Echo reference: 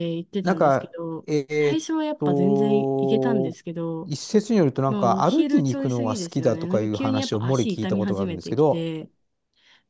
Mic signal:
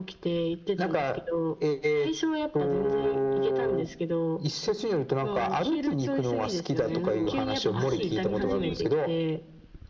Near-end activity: present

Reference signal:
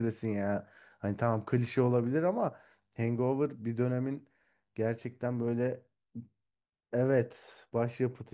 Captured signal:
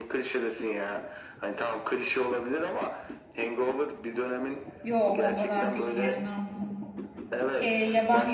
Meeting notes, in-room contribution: present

